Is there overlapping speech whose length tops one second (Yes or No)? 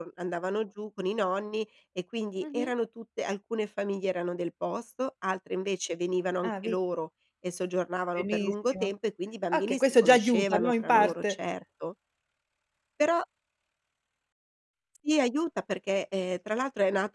Yes